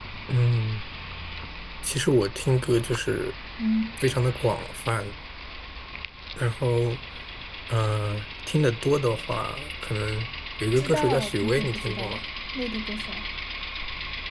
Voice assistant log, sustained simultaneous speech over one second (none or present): present